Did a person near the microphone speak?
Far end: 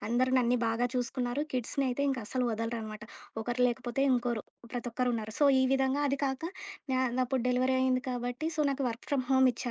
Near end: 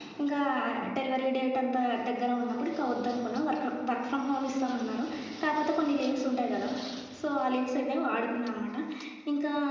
Yes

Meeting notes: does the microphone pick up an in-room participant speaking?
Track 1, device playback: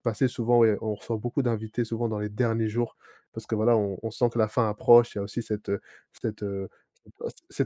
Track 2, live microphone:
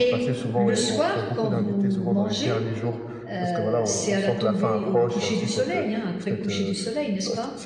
Yes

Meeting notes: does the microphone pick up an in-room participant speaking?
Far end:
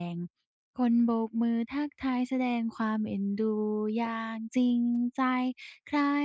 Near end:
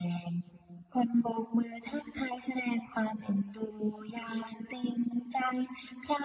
No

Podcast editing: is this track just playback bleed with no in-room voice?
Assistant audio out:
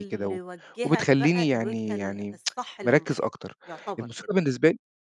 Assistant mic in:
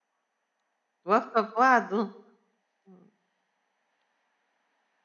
No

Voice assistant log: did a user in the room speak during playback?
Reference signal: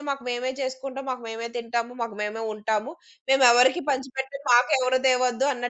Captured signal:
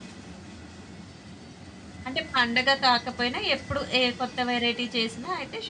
Yes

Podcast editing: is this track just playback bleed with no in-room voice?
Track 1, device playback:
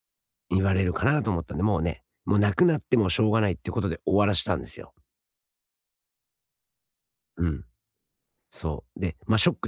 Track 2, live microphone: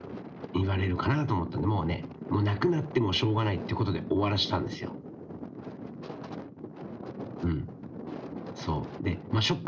Yes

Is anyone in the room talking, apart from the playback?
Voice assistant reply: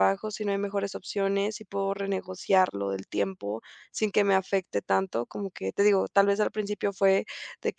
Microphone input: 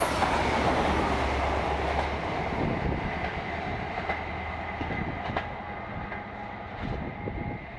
No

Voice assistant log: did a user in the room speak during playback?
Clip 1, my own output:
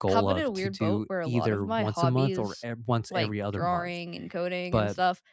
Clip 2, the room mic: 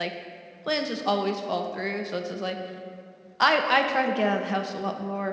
Yes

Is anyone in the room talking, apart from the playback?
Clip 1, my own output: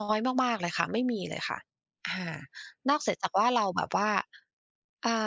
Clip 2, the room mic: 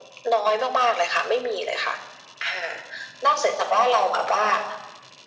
No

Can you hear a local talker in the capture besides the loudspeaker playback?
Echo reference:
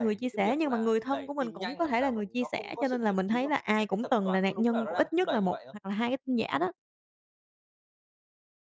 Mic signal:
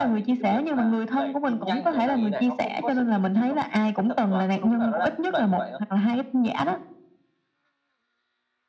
Yes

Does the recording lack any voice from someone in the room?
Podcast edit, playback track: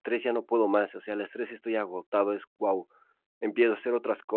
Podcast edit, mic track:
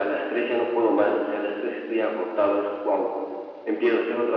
Yes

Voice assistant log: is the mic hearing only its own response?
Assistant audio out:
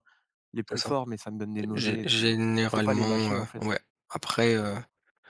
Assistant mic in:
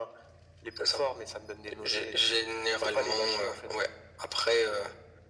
Yes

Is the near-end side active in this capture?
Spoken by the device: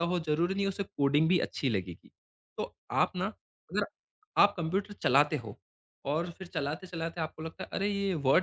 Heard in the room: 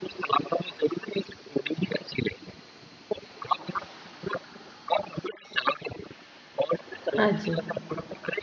Yes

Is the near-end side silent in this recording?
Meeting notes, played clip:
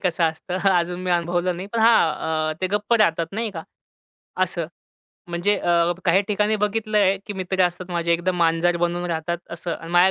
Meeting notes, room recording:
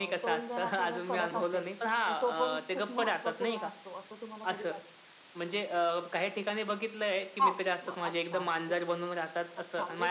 No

